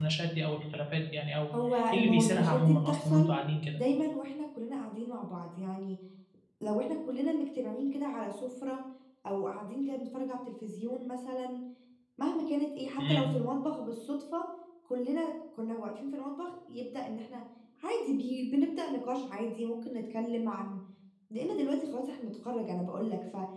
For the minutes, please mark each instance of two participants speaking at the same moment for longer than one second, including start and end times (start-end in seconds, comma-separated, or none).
1.9-3.3